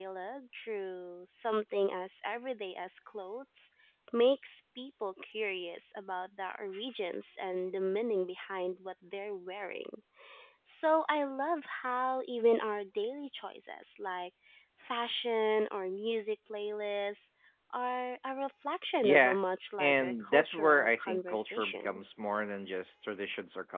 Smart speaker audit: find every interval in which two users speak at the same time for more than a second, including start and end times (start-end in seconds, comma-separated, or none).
19.8-22.0